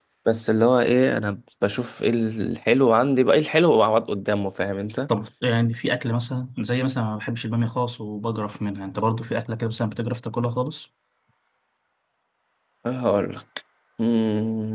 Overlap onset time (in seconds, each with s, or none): none